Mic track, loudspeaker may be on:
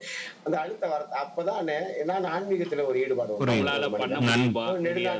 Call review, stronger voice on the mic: user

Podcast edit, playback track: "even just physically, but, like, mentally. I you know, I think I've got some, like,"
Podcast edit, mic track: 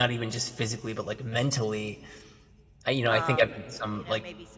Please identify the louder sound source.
echo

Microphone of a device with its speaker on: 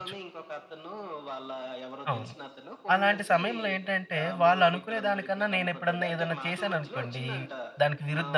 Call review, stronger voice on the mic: user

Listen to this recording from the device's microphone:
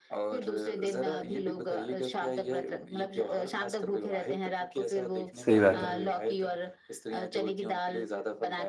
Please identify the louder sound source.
user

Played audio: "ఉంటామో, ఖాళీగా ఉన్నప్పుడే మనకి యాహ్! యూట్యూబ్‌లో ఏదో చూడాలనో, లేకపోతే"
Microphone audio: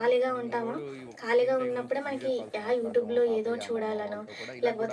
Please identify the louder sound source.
echo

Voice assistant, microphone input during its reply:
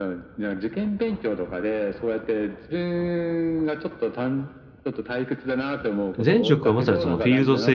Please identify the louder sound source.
user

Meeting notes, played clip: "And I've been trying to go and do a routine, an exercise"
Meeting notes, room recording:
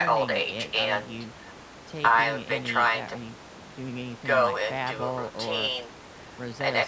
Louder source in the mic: echo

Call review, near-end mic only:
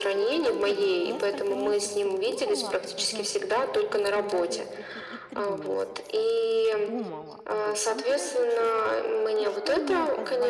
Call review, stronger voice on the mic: echo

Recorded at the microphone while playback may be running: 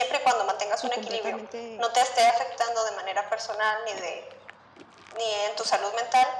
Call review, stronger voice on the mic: echo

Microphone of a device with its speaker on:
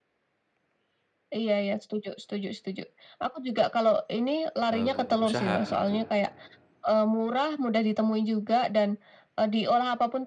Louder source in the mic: echo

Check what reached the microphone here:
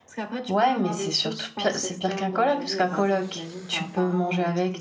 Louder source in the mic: user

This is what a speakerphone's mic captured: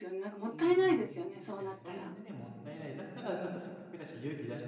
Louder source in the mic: echo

